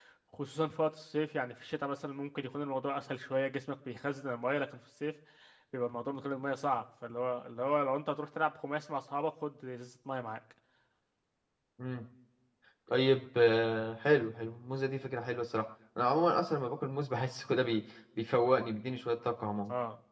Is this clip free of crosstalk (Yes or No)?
Yes